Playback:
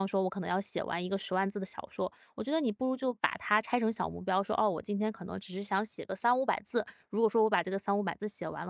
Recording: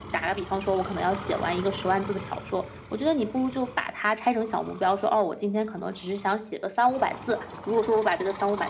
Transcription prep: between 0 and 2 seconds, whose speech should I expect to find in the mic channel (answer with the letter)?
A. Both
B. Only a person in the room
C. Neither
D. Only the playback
D